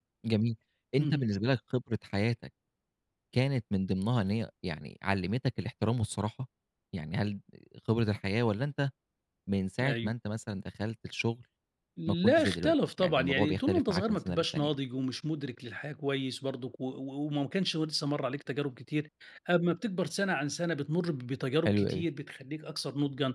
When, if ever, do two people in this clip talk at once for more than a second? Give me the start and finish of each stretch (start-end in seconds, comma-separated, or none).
12.1-14.7